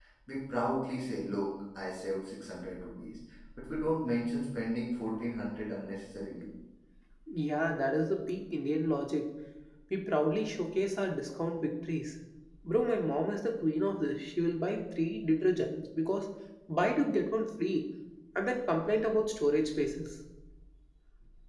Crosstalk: none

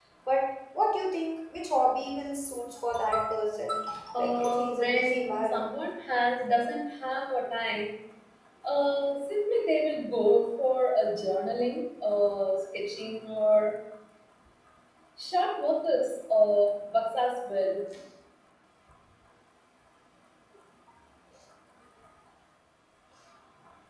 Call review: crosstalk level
present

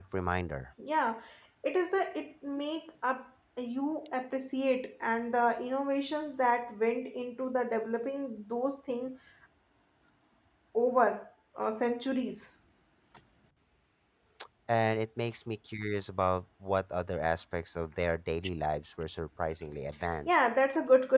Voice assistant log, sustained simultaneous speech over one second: none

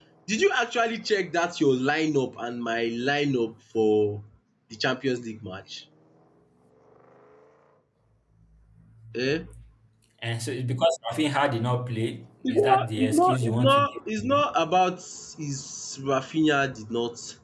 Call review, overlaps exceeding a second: present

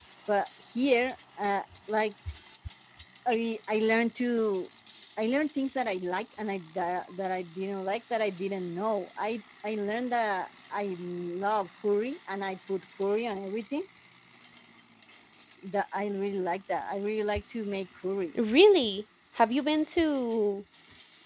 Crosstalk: none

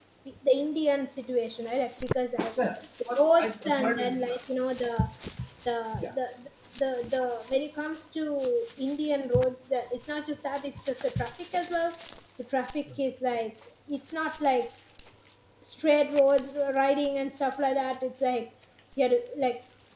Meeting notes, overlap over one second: present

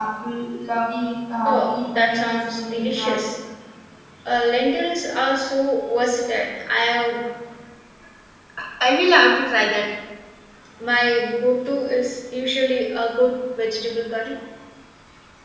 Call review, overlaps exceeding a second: present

